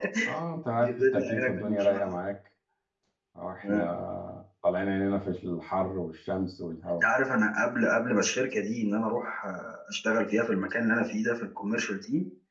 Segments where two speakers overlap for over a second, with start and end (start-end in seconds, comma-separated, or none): 0.8-2.1